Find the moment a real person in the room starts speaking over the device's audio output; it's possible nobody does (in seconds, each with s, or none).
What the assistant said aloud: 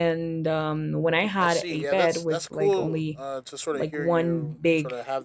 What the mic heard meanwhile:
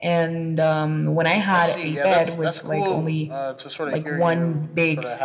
none